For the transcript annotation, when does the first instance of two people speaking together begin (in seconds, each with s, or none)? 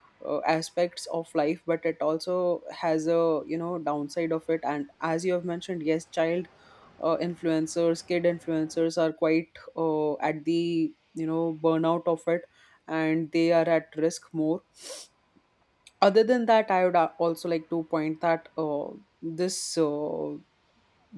none